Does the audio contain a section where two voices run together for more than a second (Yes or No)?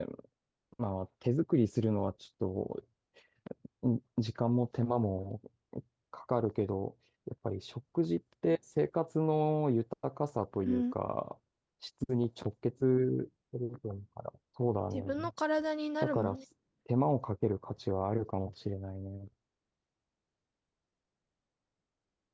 No